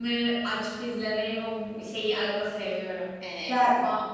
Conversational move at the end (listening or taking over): listening